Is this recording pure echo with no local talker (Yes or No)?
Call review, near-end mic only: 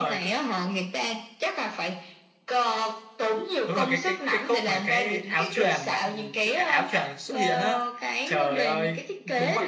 No